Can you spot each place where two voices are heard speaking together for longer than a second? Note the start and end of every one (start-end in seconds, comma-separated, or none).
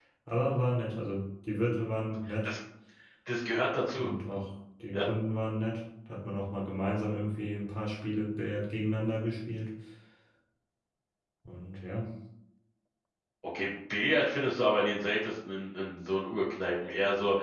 none